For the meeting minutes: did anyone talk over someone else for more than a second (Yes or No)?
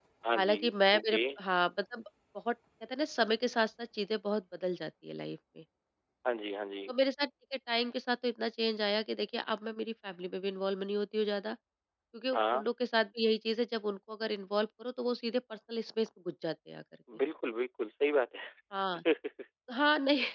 No